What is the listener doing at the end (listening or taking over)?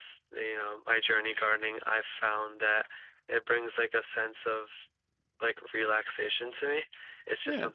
listening